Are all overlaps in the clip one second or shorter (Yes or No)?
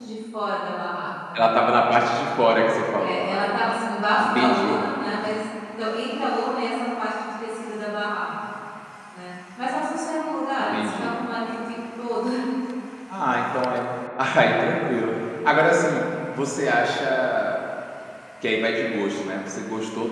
Yes